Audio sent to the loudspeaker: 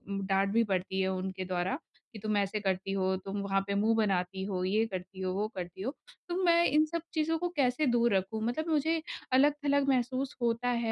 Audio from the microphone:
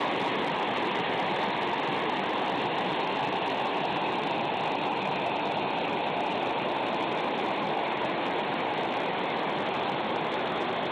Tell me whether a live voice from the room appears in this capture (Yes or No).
No